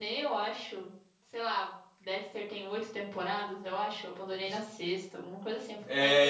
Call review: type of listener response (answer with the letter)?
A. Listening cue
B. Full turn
B